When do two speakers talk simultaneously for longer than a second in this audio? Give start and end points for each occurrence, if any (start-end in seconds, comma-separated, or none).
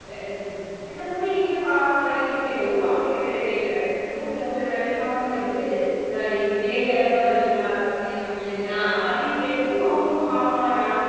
none